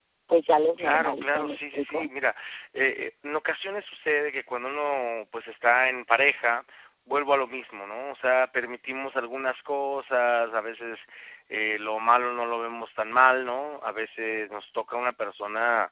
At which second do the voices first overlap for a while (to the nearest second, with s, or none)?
1 s